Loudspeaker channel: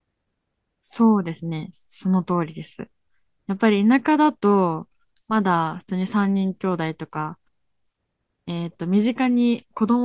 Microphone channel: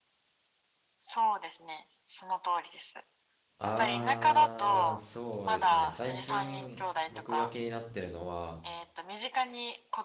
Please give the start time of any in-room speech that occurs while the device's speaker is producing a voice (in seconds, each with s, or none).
3.6 s